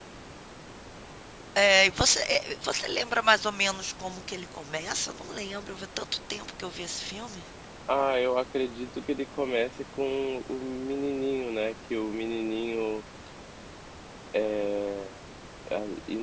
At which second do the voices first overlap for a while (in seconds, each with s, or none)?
none